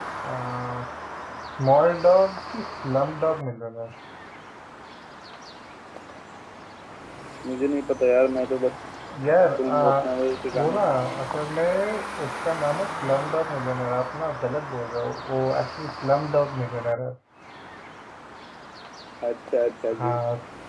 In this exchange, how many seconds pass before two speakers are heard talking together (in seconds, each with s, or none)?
9.6 s